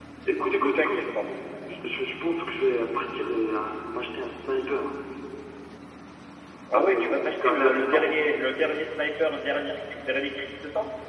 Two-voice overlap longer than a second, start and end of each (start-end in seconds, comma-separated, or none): 6.7-8.1